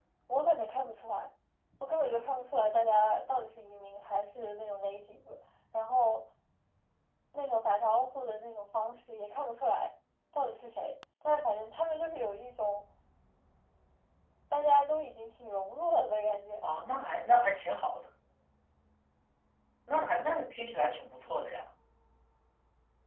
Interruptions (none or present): none